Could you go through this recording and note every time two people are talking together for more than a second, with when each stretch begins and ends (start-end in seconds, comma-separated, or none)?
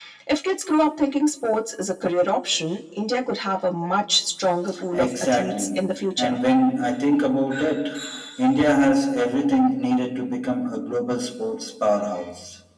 4.9-6.4